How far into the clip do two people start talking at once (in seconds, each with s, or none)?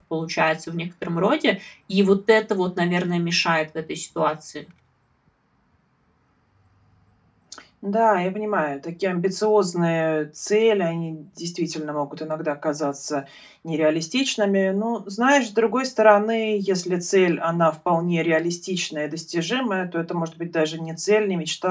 none